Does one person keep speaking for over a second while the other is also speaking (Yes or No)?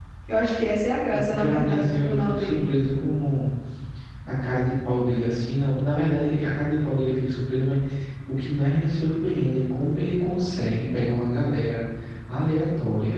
Yes